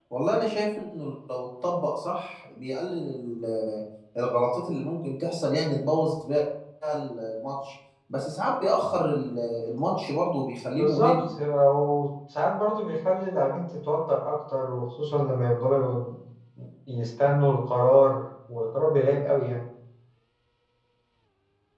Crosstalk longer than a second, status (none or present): none